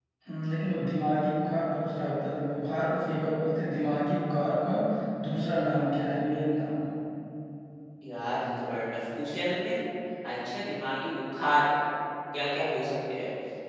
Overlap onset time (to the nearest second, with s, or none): none